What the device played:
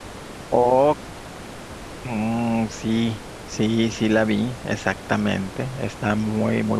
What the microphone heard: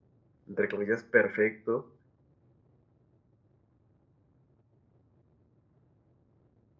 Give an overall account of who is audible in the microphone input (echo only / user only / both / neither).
user only